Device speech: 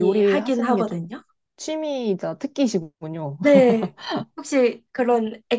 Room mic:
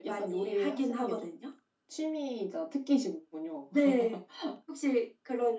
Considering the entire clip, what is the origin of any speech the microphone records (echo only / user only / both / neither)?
echo only